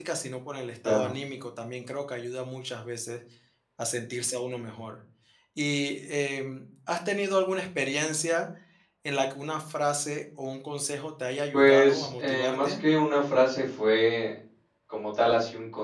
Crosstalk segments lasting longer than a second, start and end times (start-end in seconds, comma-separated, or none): 11.5-12.8